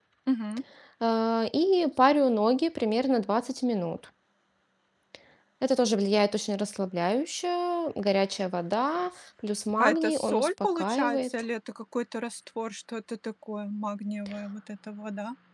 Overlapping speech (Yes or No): Yes